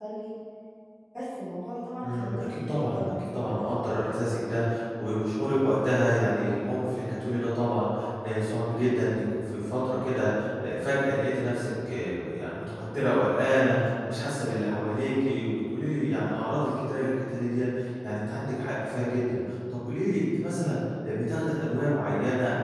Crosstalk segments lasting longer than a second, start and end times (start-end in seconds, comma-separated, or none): 2.0-4.1